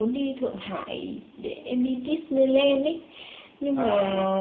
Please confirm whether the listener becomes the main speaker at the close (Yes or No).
No